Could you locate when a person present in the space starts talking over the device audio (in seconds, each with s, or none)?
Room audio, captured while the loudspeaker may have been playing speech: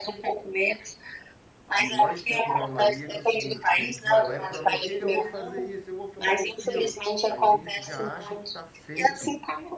1.7 s